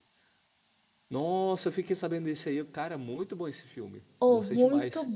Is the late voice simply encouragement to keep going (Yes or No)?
No